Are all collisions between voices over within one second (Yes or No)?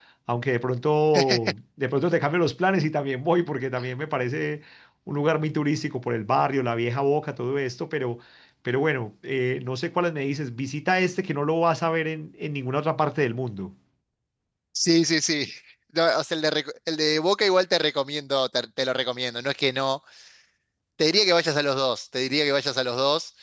Yes